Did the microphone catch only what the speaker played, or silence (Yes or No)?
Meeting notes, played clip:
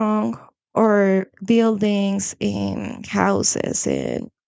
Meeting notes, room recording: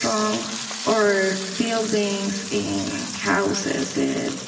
Yes